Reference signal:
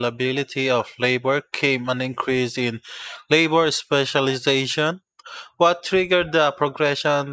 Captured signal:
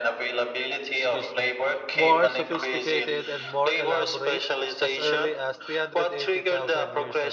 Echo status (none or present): present